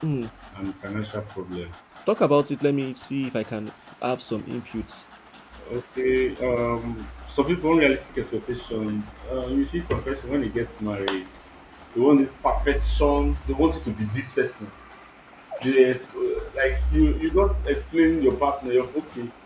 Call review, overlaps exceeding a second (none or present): none